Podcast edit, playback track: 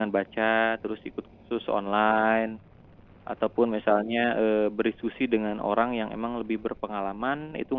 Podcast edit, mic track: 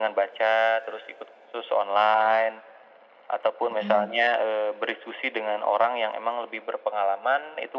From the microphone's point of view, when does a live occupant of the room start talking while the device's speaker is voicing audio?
4 s

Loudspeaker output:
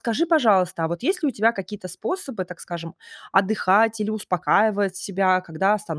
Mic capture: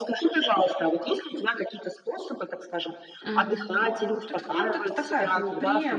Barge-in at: 3 s

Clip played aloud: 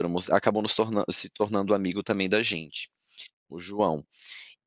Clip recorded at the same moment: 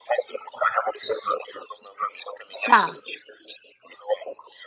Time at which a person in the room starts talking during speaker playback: 3 s

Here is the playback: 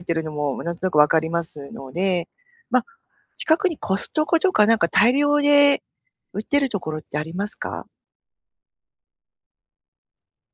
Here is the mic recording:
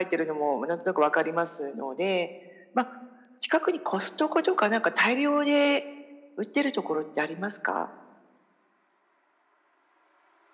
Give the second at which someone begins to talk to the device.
none

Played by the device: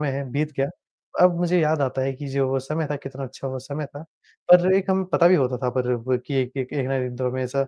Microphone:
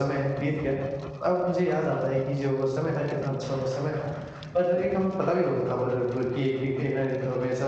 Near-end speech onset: none

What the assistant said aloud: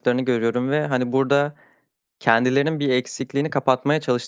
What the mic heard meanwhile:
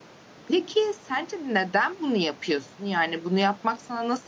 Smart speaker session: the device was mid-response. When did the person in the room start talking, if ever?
0 s

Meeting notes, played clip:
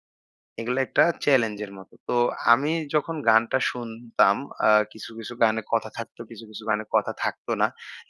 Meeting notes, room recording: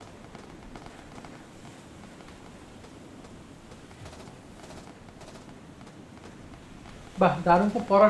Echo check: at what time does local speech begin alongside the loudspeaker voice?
7 s

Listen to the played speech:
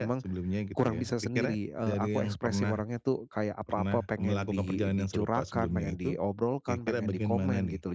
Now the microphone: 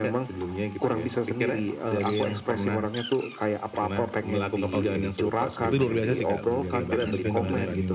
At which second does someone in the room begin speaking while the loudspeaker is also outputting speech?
5 s

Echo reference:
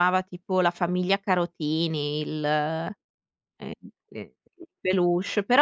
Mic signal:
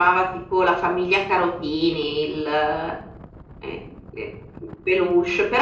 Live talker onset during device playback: none

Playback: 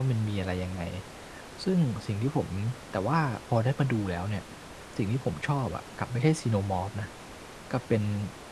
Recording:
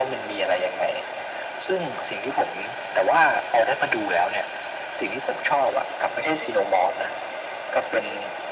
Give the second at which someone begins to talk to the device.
none

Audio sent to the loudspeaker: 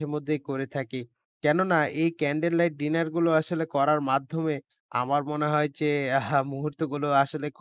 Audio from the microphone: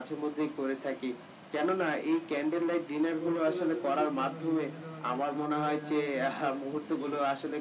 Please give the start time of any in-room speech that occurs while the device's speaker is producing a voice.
3 s

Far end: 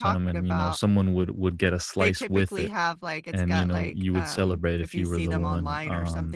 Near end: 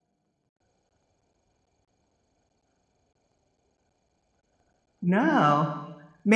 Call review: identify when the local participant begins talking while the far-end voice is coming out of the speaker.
5 s

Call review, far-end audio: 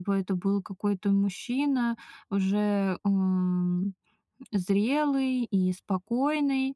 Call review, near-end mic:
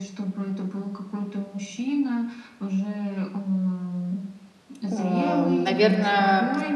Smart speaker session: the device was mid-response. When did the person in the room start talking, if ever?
5 s

